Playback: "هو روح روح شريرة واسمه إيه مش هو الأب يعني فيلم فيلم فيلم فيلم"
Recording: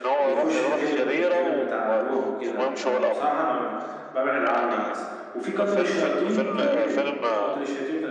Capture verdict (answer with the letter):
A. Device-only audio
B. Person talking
B